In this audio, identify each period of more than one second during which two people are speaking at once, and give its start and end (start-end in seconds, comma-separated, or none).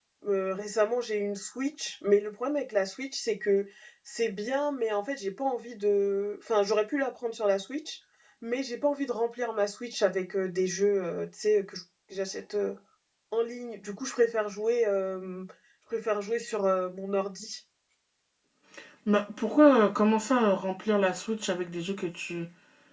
none